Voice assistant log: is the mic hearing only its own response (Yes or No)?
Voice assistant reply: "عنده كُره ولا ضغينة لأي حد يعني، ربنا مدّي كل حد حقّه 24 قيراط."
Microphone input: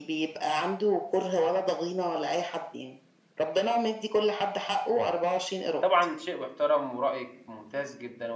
No